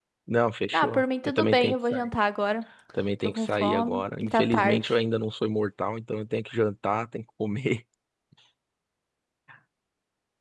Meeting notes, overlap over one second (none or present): present